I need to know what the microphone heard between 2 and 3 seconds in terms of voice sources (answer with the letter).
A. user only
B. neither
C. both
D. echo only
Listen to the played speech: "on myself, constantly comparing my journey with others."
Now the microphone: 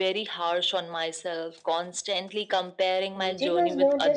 D